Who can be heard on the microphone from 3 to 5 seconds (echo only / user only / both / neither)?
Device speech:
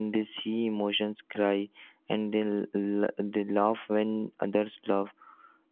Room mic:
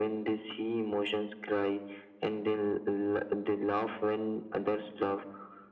echo only